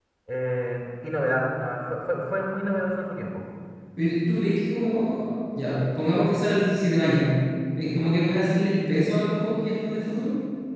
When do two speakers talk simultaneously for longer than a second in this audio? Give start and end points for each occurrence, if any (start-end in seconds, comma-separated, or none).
none